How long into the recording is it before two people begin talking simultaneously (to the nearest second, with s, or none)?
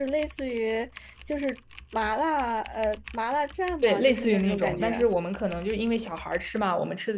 4 s